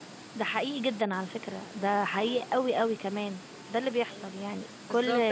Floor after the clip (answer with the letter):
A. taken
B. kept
A